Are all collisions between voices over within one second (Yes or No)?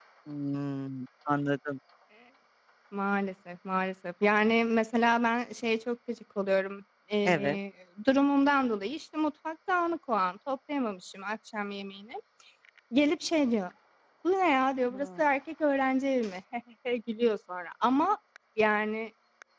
Yes